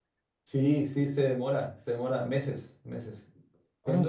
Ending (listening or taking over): taking over